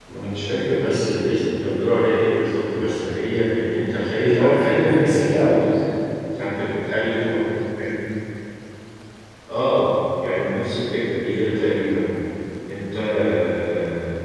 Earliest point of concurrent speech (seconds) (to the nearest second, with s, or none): 4 s